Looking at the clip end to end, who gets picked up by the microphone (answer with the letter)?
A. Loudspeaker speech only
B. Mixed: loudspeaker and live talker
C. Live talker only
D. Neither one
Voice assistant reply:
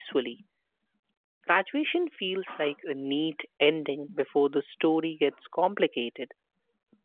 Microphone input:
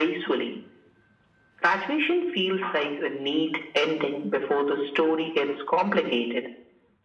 A